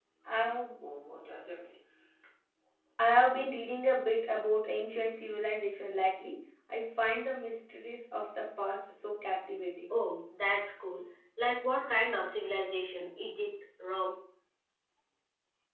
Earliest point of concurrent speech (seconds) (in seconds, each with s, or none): none